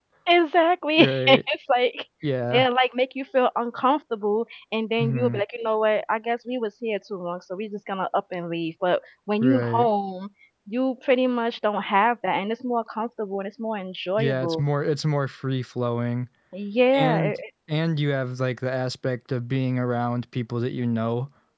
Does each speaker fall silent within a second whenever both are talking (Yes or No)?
Yes